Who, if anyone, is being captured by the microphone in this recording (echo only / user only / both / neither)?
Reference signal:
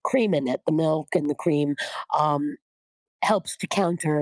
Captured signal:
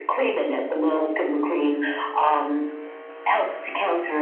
echo only